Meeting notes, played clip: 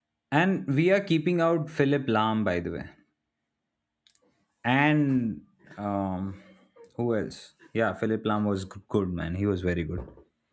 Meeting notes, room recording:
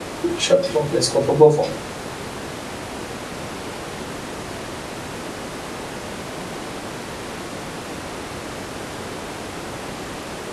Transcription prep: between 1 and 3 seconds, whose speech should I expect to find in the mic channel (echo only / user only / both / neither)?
user only